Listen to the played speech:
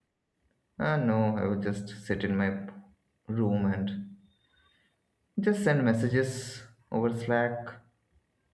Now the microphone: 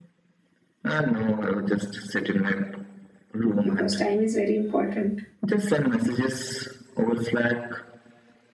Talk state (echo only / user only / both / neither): both